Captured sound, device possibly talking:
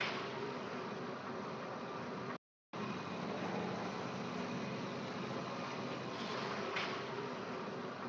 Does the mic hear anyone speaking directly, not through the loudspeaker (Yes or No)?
No